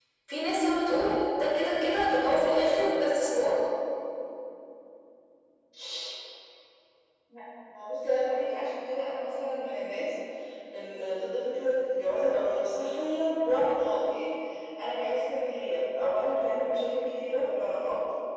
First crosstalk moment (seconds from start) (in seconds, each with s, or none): none